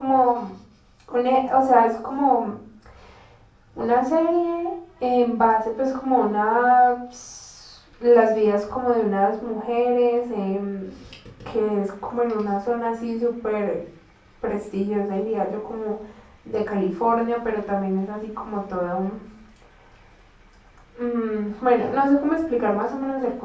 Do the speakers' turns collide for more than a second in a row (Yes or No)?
No